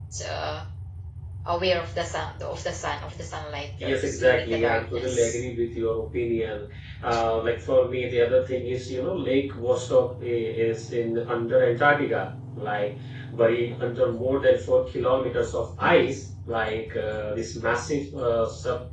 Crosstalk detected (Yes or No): Yes